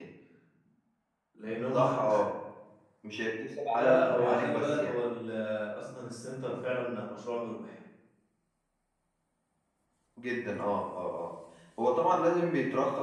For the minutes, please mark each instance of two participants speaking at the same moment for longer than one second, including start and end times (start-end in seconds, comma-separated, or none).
3.7-5.0